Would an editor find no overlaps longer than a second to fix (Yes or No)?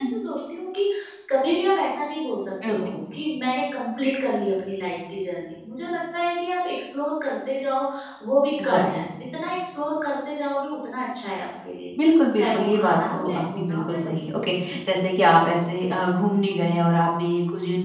No